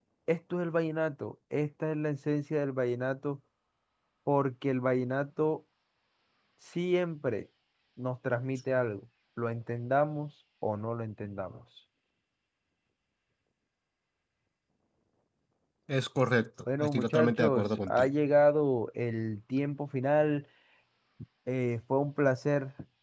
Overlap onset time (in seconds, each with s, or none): 16.6 s